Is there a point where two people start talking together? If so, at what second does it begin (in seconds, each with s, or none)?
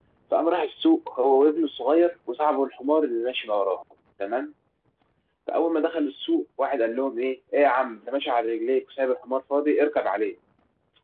none